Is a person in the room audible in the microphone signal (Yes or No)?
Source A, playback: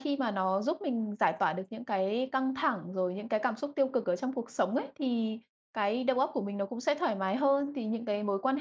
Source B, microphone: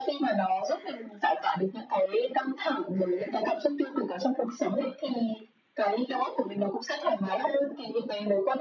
No